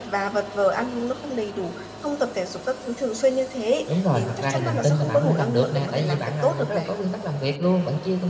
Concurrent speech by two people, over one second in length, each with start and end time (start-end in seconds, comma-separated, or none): 3.9-6.9